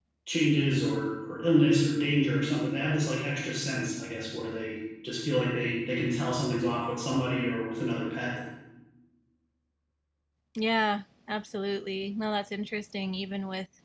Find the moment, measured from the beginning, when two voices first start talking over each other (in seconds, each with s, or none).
none